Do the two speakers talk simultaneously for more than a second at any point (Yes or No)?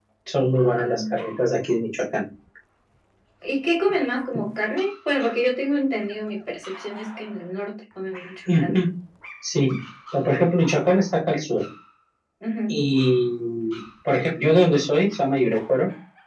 No